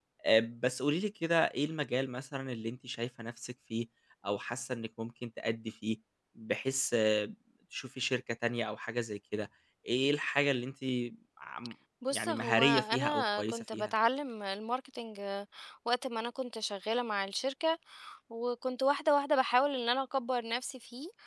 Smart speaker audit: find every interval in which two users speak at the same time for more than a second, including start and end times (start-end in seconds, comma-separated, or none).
12.1-13.9